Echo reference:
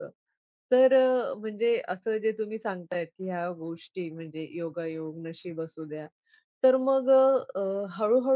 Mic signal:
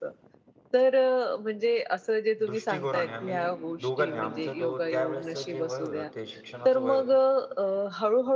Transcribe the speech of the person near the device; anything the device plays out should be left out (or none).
दृष्टिकोनाने आम्ही दोघांनी आमचं दो त्यावेळेसचं जे वय होतं ते शिक्षणाचं वय होतं.